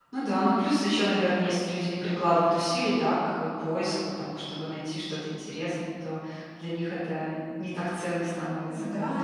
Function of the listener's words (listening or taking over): taking over